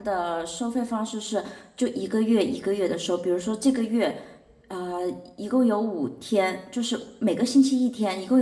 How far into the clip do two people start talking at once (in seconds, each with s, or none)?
none